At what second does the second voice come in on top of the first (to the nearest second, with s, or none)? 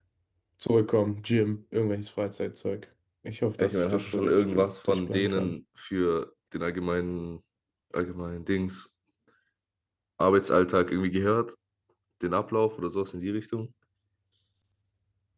4 s